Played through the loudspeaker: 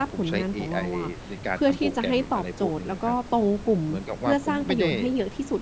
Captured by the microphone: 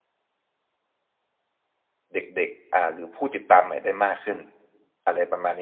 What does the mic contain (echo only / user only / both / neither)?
user only